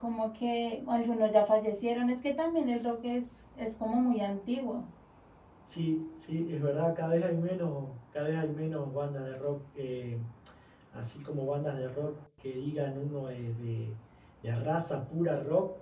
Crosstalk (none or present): none